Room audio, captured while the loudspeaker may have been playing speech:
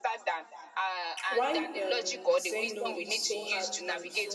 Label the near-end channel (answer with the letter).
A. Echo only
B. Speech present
A